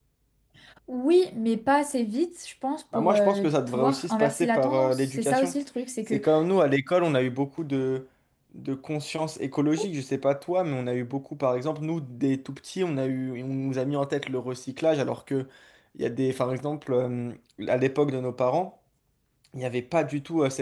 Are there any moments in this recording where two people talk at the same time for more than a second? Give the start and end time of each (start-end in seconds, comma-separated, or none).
3.0-5.5